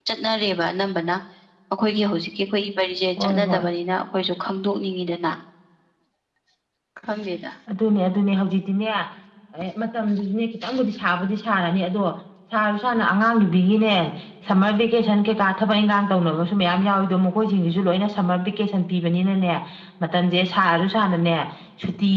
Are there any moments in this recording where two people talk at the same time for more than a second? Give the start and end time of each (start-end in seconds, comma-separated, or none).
none